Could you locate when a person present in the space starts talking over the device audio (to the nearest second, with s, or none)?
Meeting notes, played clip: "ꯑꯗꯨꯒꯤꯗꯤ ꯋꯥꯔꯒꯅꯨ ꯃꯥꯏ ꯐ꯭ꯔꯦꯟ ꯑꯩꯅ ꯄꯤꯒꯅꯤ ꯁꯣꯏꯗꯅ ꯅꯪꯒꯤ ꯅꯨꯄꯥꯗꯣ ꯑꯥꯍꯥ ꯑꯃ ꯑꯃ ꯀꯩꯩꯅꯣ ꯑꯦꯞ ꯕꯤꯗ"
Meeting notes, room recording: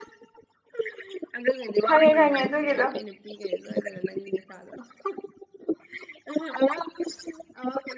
2 s